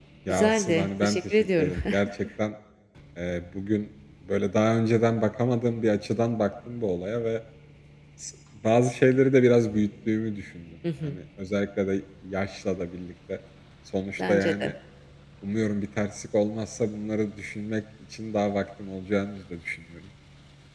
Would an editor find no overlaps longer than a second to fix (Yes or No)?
No